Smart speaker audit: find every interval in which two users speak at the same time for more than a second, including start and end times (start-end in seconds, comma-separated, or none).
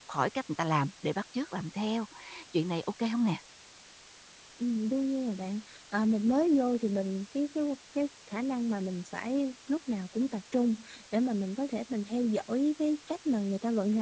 none